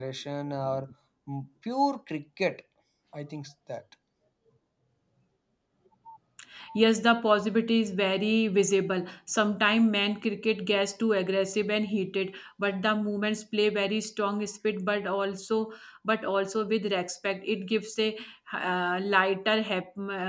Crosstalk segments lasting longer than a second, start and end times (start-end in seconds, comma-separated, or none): none